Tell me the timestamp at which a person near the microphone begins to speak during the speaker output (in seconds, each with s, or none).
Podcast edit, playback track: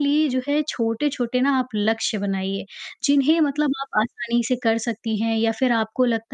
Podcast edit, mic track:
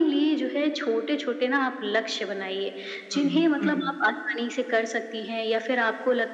3.1 s